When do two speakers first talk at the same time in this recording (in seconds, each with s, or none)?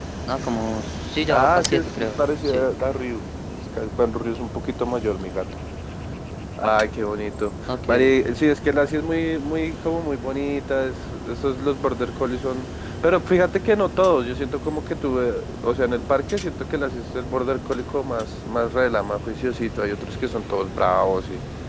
1.3 s